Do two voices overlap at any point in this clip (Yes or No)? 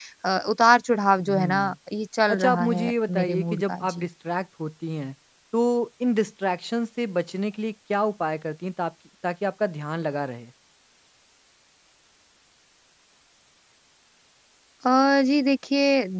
Yes